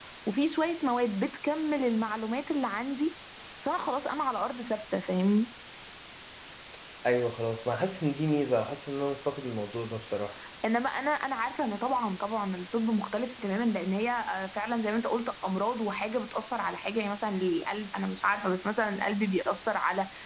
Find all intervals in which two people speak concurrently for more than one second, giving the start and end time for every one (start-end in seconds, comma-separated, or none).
none